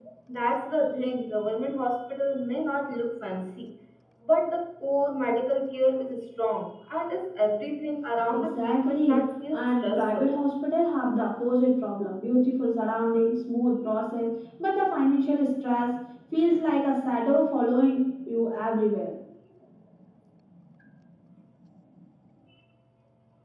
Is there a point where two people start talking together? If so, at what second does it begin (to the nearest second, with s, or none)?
8 s